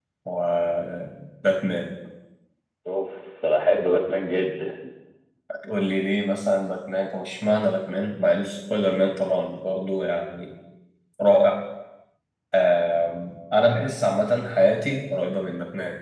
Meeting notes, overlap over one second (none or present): none